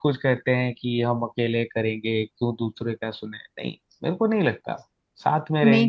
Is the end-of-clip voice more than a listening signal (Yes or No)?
Yes